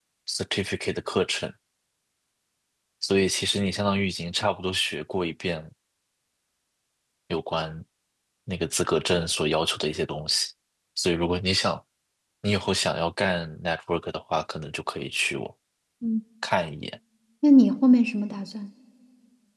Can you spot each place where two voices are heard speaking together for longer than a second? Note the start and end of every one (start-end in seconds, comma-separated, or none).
none